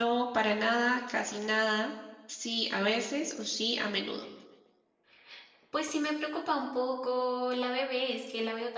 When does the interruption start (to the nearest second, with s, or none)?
none